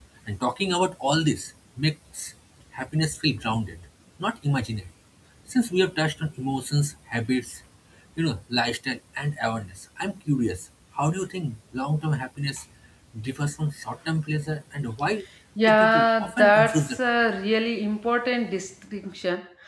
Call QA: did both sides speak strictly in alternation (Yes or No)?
No